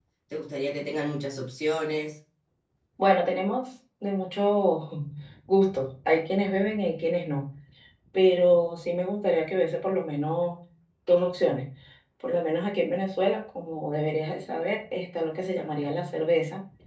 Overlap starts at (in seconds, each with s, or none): none